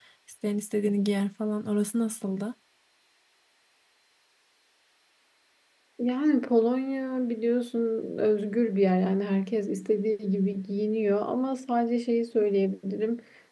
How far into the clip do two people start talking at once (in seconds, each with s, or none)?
none